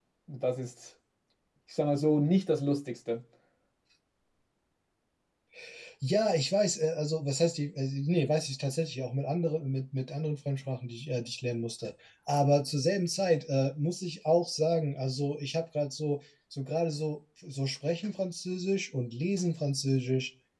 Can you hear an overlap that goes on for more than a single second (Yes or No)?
No